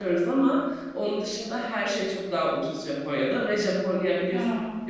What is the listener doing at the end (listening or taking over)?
listening